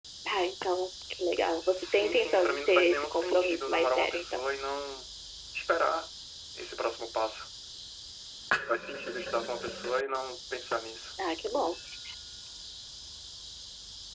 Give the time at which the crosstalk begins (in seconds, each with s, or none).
1.8 s